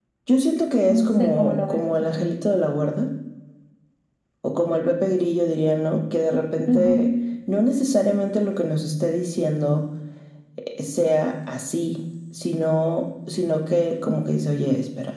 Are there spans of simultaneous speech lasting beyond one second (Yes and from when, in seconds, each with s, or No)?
Yes, from 0.9 s